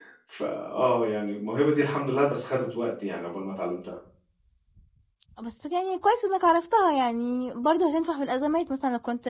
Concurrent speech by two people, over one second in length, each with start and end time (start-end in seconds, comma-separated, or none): none